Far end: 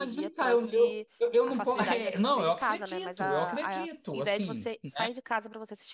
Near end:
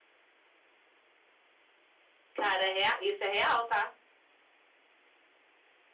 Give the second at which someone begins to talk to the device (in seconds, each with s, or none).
2.3 s